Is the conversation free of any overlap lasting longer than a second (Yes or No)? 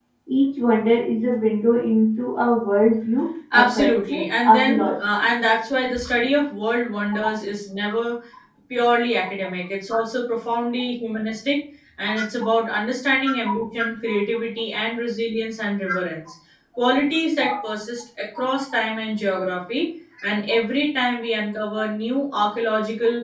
No